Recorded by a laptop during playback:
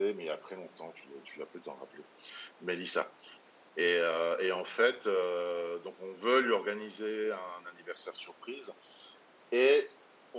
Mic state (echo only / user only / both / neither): user only